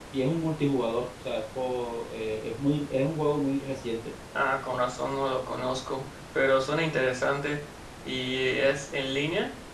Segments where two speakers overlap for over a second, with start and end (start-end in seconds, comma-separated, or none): none